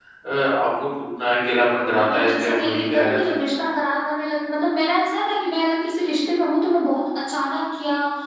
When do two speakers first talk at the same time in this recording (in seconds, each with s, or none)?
1.9 s